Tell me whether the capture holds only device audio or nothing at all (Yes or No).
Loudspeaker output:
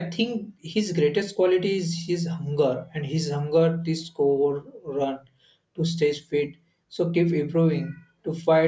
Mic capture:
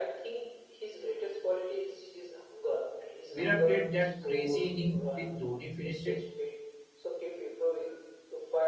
No